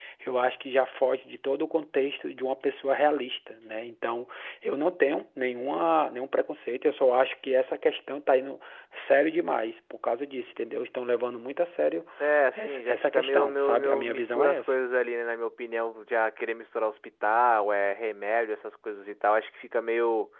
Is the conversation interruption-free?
No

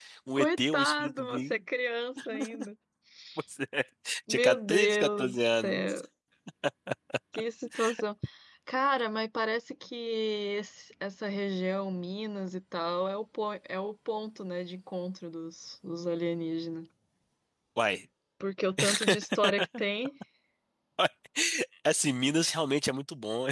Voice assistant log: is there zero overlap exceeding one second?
No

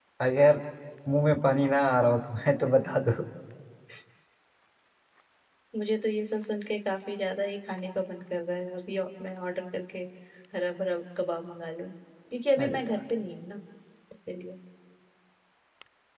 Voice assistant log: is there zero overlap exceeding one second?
Yes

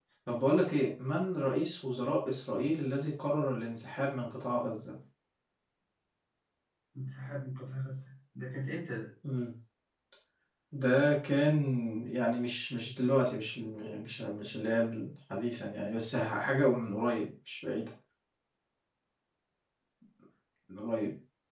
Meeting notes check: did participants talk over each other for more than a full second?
No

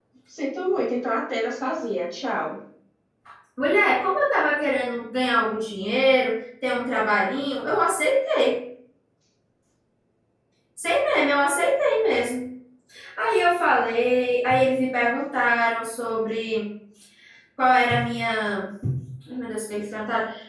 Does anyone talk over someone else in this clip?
No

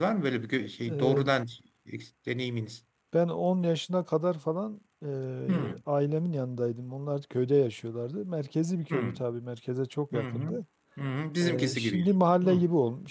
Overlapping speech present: Yes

